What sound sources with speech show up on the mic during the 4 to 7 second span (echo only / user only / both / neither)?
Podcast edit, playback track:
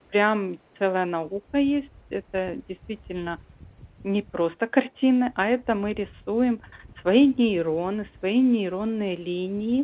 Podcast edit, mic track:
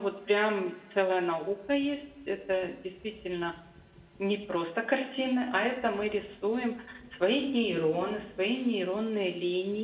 echo only